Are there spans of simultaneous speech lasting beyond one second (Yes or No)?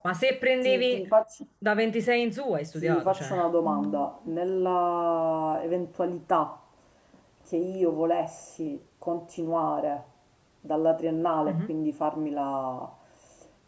Yes